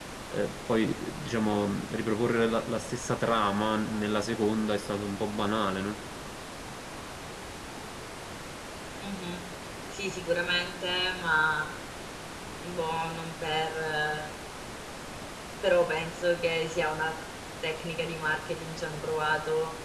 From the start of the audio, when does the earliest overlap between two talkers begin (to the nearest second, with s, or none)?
none